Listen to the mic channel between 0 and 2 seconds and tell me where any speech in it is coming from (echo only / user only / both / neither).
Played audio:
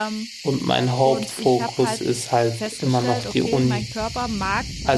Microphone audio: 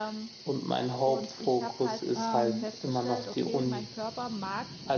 echo only